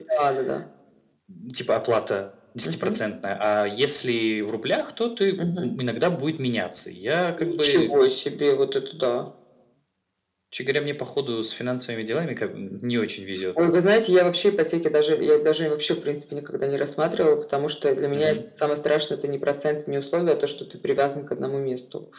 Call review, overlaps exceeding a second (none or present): none